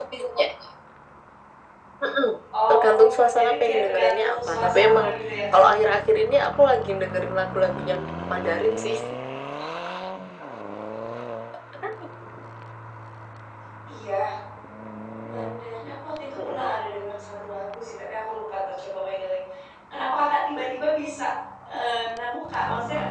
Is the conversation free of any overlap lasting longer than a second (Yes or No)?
No